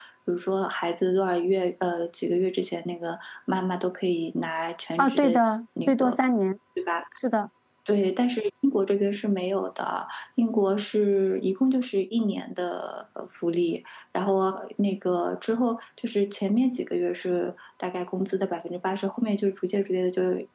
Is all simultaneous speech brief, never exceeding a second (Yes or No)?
Yes